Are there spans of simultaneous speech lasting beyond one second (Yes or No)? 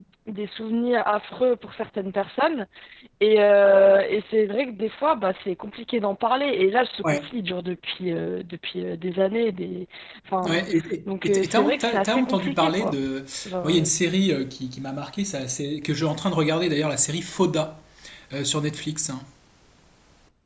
Yes